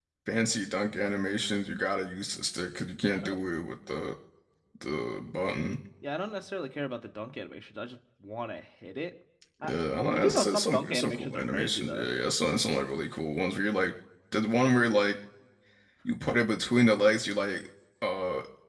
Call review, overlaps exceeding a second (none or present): present